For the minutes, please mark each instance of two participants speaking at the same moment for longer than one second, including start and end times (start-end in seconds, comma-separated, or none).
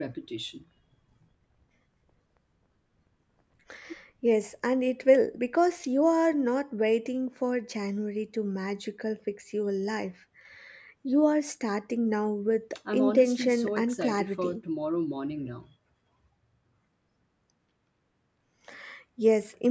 12.9-14.6